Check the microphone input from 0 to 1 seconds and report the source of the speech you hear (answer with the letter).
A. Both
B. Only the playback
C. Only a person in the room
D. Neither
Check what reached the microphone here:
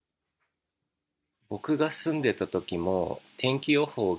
D